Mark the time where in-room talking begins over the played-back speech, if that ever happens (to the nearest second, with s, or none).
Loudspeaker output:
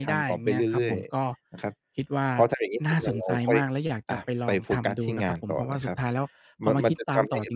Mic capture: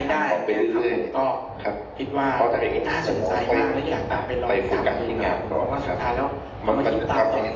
none